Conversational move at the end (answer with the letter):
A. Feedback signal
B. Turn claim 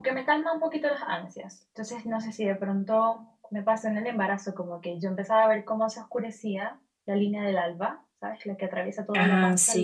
A